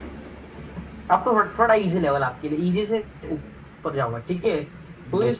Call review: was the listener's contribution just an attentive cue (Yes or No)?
Yes